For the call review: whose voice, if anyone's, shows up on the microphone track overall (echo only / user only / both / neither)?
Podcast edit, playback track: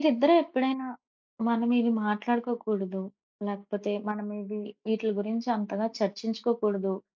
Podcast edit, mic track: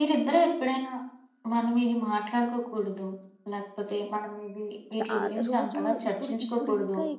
both